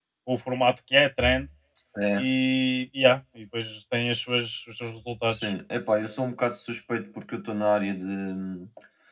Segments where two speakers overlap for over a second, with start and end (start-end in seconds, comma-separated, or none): none